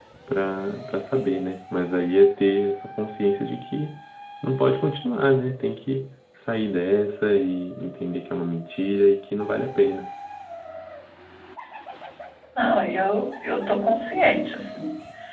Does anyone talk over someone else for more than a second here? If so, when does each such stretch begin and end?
none

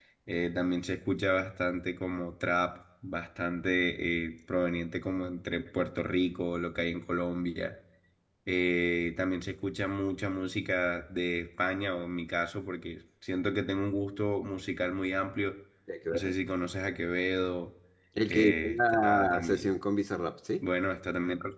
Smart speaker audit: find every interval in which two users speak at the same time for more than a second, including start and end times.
18.3-19.8

